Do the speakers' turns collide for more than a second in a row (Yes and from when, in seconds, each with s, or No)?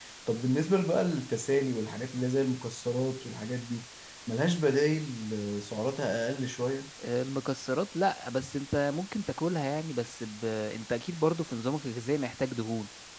No